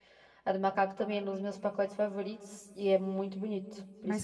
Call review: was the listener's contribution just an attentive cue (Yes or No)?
No